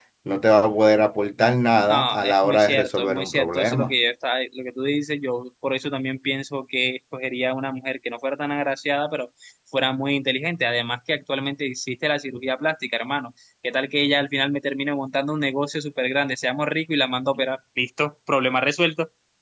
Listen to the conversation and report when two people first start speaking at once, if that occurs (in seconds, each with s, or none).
1.9 s